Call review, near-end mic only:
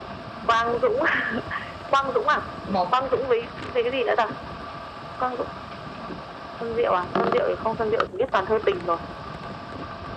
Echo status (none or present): present